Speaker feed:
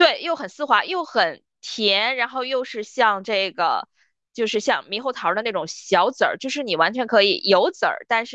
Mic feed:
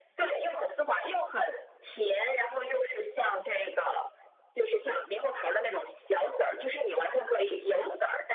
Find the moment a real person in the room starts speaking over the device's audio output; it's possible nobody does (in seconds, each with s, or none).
none